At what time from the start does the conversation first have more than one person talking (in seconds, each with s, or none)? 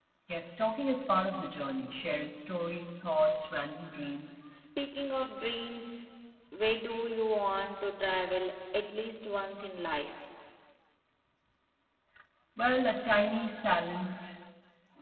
none